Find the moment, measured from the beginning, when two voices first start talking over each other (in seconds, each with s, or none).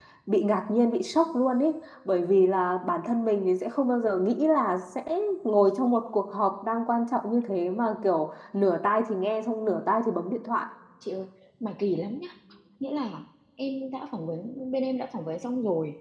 none